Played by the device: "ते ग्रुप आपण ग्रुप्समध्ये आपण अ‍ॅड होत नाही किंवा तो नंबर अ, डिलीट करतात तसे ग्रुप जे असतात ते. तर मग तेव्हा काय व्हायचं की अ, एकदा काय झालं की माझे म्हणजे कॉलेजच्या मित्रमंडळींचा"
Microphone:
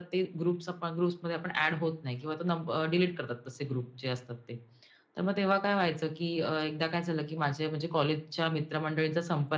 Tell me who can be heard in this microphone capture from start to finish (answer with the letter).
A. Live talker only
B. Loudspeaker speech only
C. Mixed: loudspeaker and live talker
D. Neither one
B